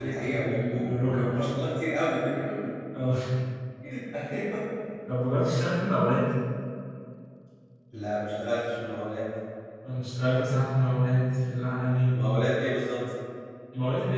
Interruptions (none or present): present